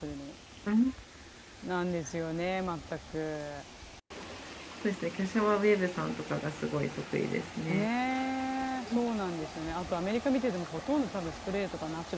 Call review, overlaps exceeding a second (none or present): none